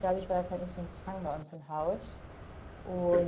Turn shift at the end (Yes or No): No